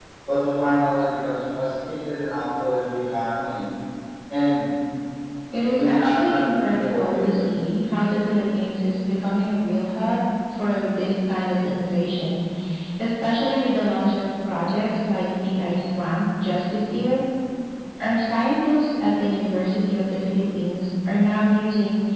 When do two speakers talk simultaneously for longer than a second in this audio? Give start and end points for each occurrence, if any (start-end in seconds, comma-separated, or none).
5.7-7.5